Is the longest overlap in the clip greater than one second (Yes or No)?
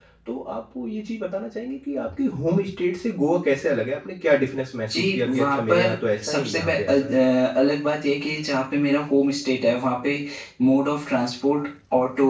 Yes